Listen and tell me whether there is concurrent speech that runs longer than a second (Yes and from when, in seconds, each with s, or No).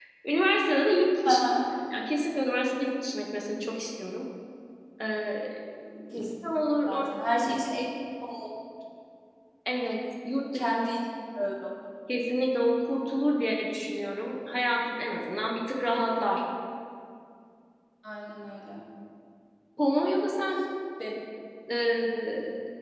No